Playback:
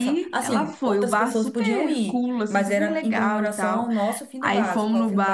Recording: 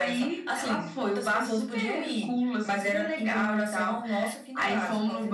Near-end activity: none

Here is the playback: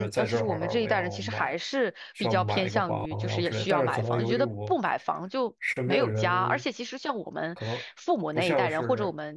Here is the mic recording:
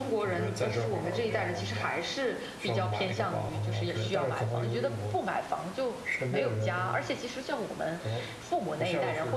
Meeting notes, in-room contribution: none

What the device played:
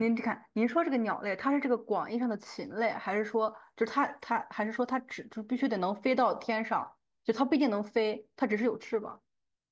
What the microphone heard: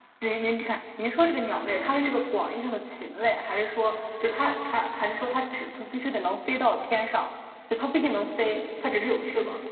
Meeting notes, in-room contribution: none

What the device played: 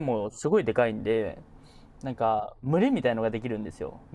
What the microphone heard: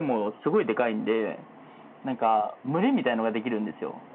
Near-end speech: none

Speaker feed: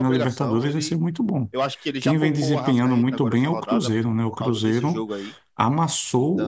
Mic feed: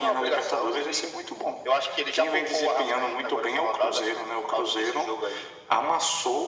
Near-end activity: none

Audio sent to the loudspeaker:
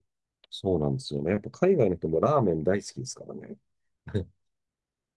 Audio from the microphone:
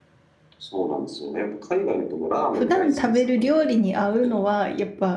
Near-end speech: present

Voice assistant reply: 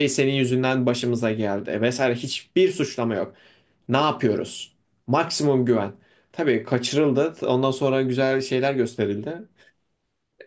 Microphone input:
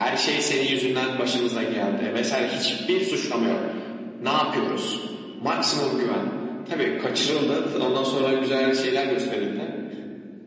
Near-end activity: none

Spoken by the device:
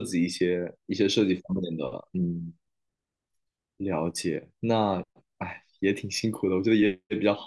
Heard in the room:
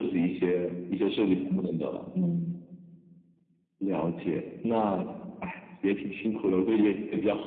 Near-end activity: none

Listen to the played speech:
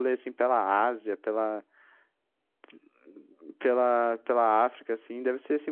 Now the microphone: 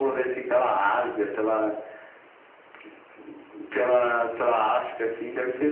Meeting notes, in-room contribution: none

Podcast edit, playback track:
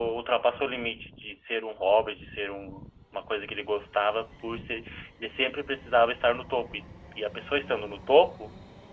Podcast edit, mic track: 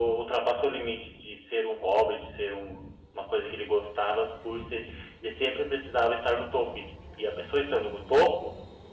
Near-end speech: none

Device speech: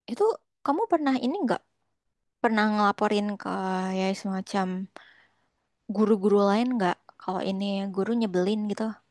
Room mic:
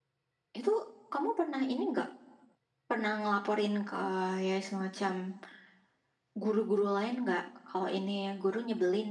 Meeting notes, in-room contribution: none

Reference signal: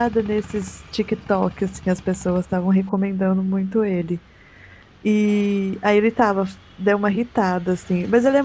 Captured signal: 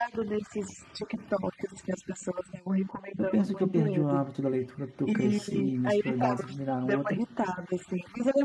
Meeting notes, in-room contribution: present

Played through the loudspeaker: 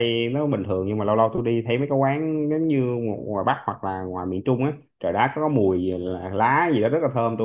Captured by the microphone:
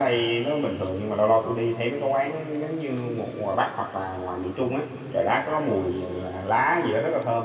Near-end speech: none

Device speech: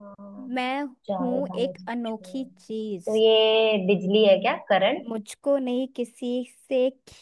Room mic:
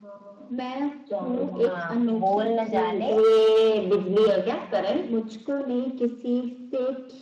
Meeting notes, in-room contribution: present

